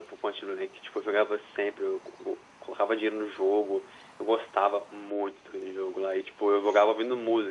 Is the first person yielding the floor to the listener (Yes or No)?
No